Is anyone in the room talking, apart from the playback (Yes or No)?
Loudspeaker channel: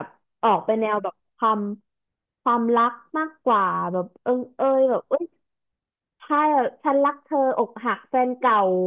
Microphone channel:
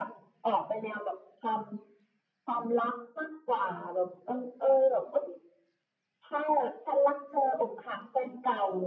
No